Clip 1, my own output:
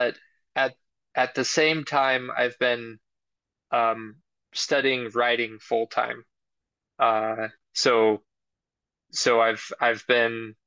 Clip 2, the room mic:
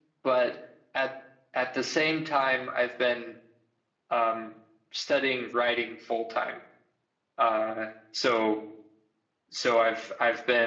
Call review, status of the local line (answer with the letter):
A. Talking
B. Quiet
B